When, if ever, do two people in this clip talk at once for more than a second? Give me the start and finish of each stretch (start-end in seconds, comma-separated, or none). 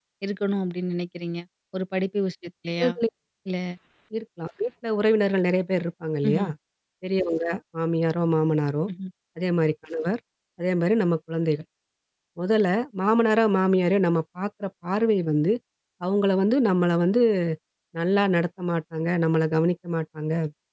none